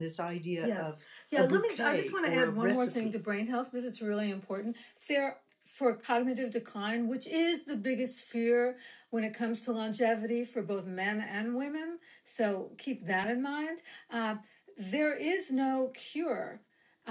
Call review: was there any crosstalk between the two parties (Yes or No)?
Yes